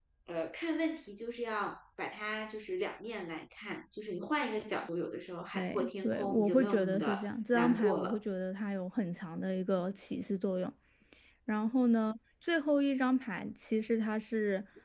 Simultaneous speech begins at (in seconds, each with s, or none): 5.5 s